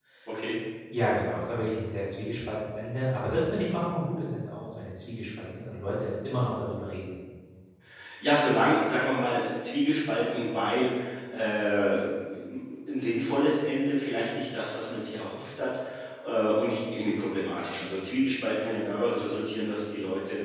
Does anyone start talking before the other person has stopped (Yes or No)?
No